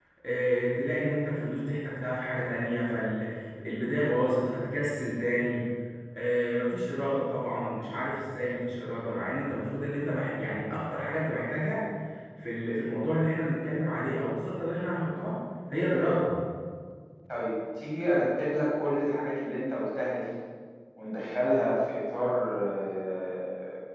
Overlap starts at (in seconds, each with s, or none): none